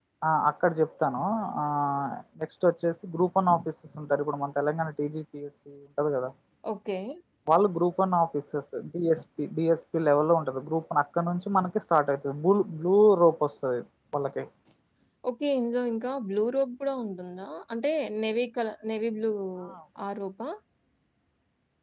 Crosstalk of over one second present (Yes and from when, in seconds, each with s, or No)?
No